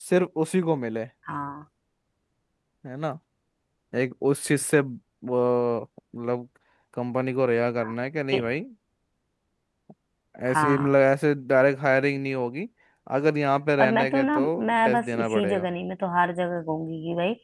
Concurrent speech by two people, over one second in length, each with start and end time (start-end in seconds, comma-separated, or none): 13.8-15.7